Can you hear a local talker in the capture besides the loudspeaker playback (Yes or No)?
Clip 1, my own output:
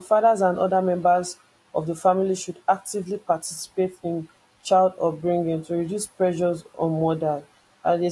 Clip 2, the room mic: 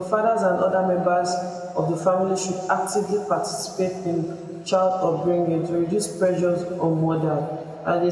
No